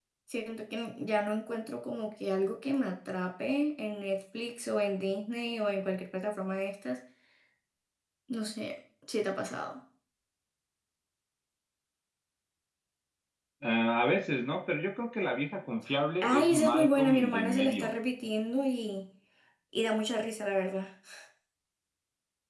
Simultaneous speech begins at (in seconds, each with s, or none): 16.2 s